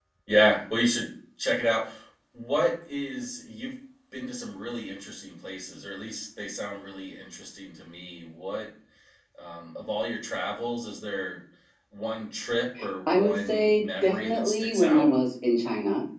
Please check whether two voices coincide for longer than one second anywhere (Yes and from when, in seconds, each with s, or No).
Yes, from 13.1 s